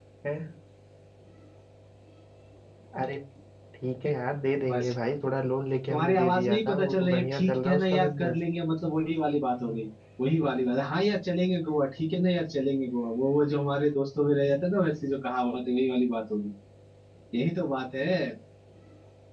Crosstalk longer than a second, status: present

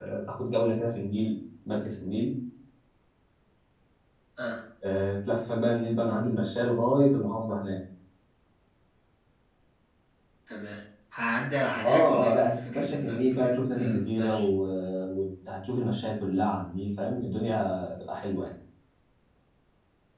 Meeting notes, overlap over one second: present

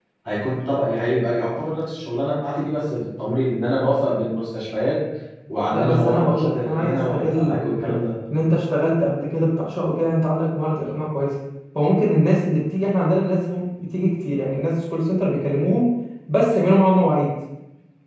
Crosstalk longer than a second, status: present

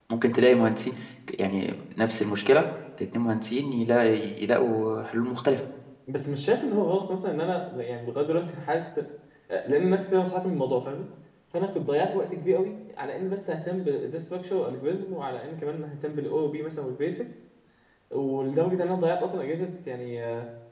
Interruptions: none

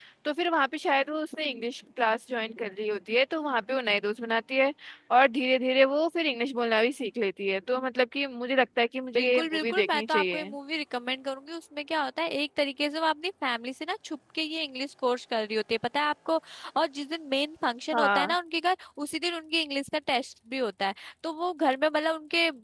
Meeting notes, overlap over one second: present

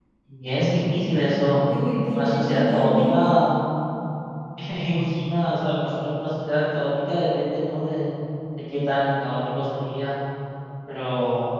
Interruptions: present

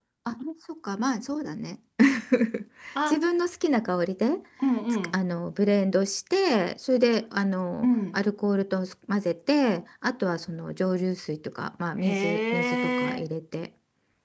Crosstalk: present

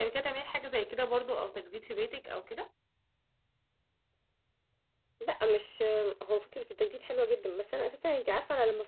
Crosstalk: none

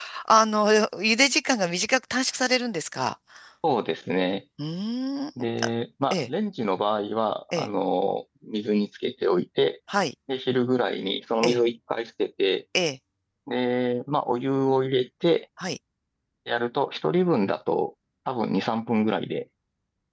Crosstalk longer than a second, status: none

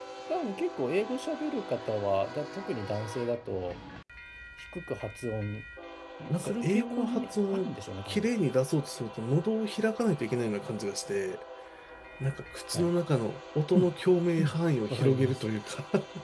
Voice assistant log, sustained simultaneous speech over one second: present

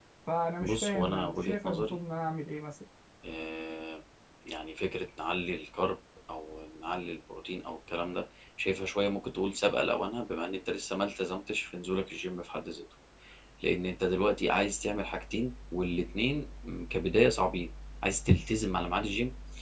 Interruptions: present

